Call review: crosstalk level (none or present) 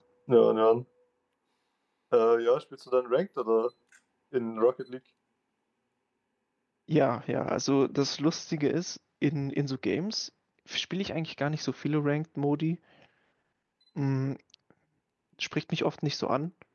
none